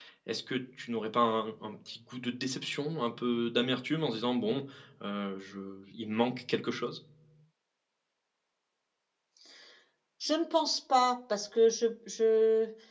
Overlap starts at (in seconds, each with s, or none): none